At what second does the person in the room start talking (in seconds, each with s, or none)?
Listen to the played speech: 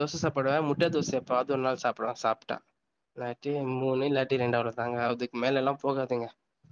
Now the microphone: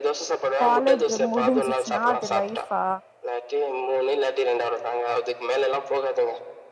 0.6 s